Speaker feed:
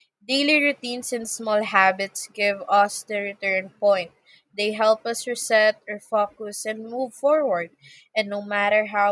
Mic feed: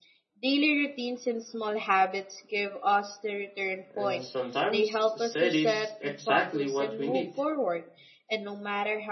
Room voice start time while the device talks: 3.9 s

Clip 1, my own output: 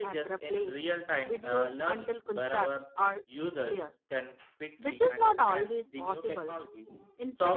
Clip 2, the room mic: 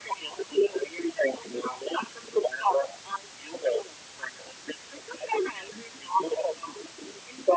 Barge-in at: none

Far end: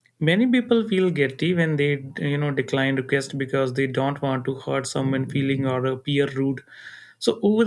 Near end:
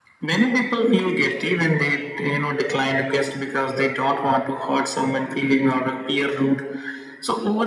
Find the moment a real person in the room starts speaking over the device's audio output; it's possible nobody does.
none

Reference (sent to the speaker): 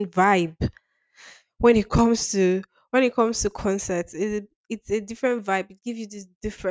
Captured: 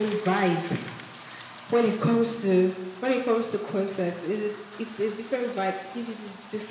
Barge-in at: none

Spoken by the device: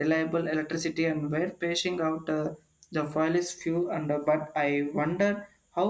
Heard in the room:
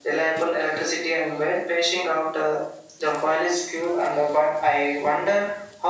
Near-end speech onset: none

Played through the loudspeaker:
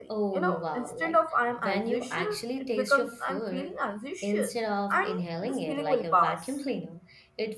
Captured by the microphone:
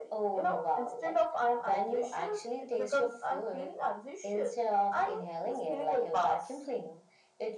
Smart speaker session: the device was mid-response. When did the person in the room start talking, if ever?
none

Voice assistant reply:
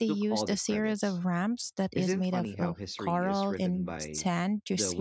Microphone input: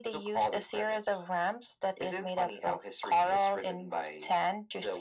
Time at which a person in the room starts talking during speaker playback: none

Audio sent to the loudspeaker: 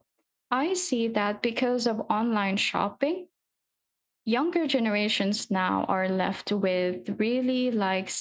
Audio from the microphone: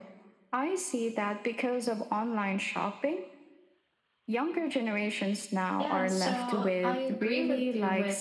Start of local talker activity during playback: 5.8 s

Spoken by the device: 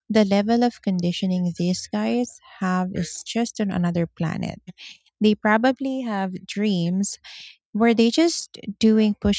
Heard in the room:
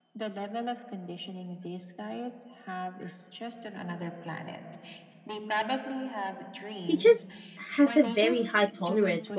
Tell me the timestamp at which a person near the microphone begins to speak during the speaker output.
6.8 s

